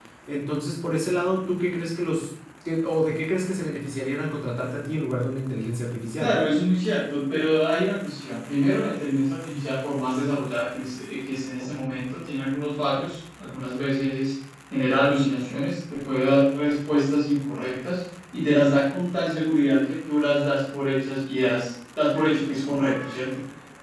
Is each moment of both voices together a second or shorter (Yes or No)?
Yes